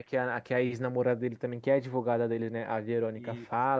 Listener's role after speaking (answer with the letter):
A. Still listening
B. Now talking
A